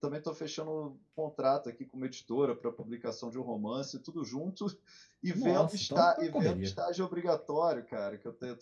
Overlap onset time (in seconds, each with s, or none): 5.3 s